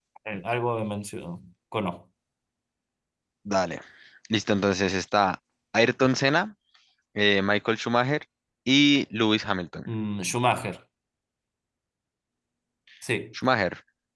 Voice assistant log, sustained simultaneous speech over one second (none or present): none